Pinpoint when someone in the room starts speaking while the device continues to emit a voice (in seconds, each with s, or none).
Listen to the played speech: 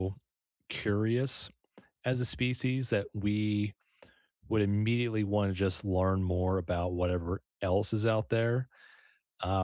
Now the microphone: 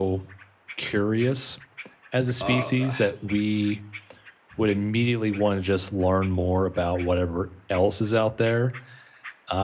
2.4 s